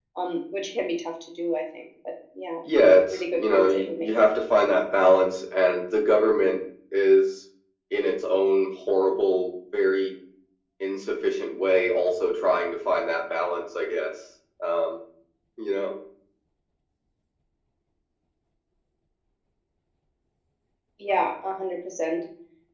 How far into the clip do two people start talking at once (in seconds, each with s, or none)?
2.6 s